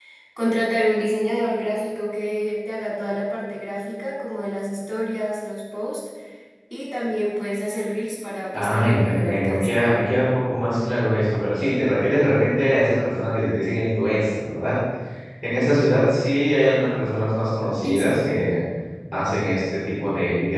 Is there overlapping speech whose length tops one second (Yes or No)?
Yes